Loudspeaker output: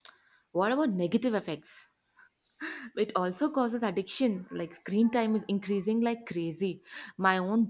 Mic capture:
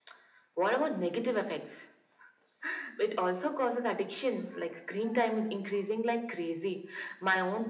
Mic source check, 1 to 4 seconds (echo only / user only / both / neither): echo only